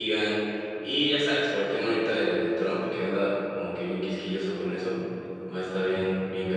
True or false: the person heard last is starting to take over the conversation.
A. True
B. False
B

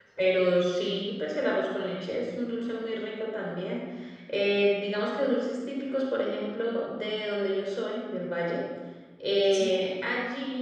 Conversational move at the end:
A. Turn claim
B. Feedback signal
B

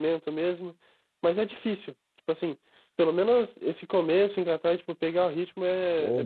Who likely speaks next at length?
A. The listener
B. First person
A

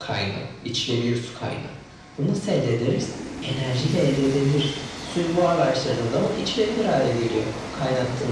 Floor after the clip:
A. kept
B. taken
B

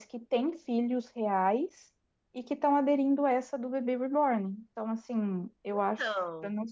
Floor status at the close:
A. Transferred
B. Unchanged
B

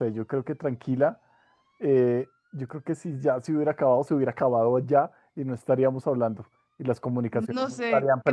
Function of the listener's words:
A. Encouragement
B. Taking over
B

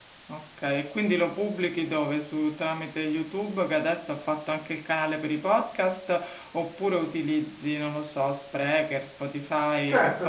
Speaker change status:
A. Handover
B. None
A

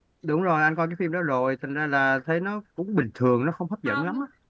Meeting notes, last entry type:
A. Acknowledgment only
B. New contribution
B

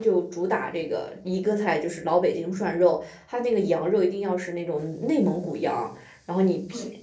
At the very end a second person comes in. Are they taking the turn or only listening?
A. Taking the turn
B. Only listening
B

